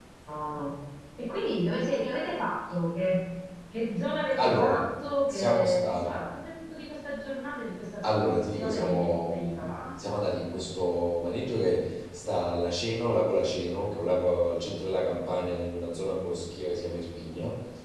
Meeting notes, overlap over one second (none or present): present